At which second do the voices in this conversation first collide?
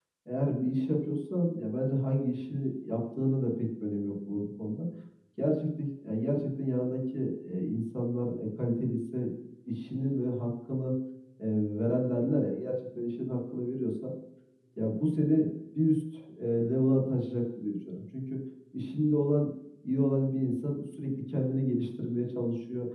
none

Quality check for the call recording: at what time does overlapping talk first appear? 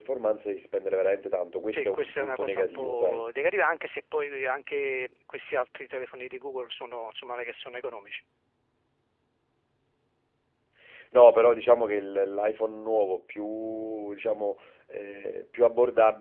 1.7 s

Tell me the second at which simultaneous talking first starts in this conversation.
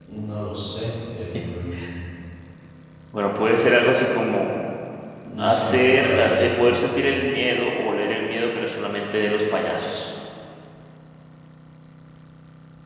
5.4 s

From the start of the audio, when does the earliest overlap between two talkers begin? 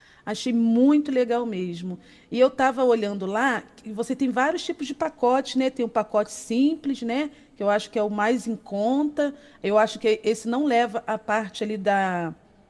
none

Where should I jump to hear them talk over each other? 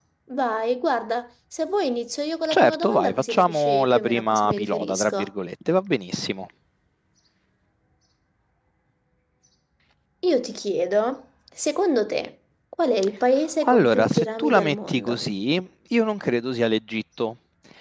2.5 s

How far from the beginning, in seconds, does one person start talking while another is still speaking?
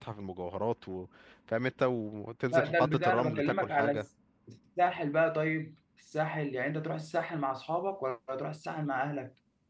2.5 s

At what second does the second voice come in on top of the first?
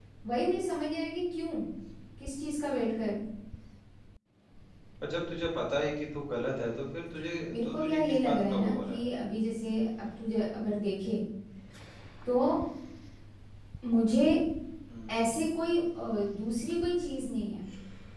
7.5 s

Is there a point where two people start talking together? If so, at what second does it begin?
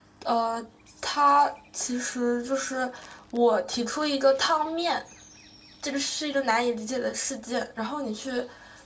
none

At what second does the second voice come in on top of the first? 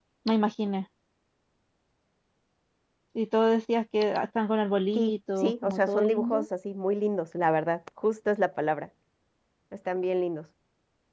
5.0 s

